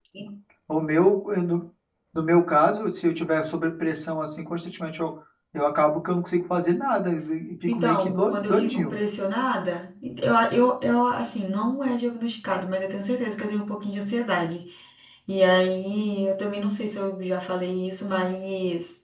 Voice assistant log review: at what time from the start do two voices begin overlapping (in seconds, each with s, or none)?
7.7 s